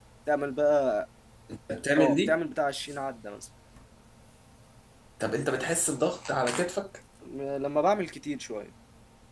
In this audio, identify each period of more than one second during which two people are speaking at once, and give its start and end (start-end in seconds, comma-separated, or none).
none